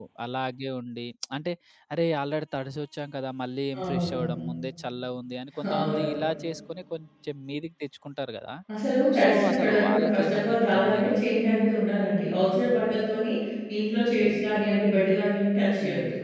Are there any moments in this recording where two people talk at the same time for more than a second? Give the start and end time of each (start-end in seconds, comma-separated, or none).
9.2-11.2